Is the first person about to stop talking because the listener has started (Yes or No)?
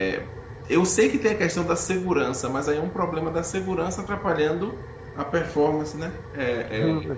No